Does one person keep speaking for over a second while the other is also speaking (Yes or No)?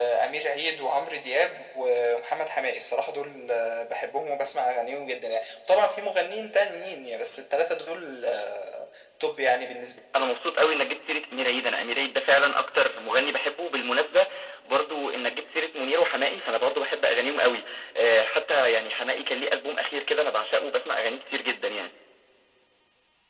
No